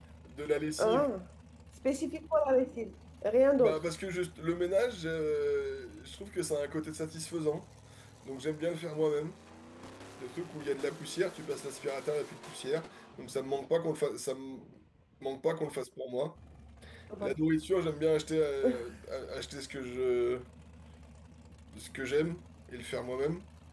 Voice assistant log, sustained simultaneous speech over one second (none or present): none